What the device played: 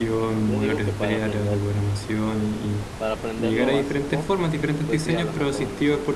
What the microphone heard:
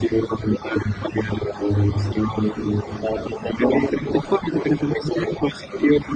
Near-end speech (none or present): none